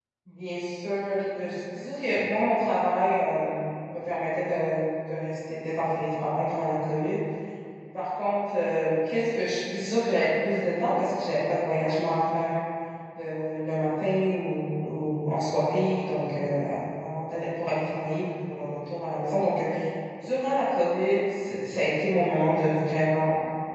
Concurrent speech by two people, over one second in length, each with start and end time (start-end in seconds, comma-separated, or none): none